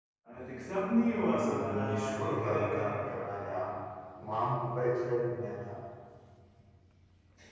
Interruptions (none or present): present